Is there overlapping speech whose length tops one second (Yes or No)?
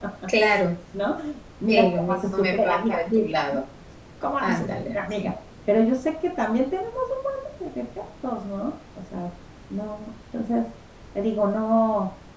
Yes